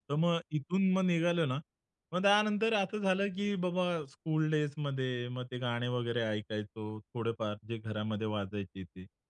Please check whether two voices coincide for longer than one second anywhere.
No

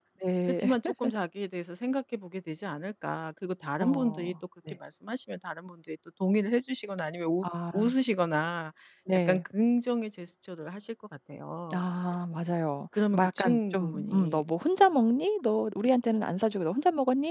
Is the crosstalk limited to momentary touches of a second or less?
No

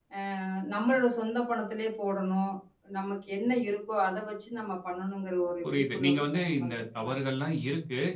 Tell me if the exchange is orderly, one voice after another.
No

